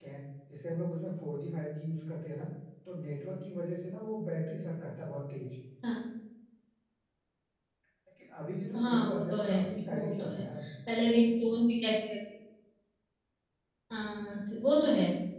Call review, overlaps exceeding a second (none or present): present